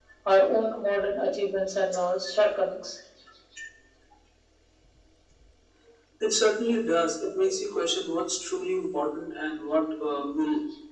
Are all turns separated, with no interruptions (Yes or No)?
Yes